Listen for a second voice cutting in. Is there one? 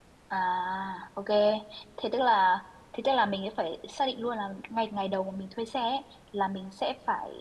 No

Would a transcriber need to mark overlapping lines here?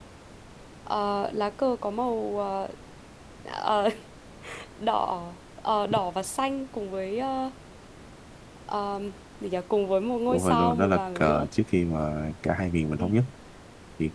Yes, from 10.3 s

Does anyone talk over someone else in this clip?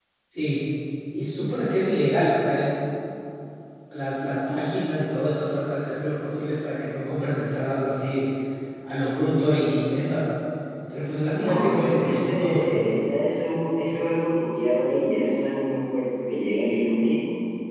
Yes, from 11.3 s

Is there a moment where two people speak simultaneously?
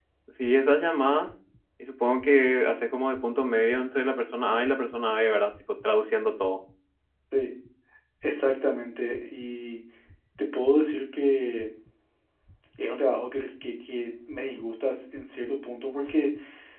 No

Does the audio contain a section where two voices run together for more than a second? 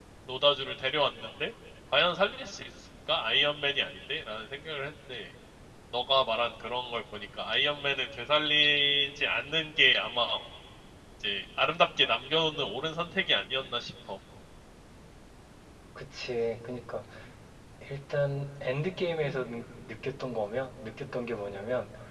No

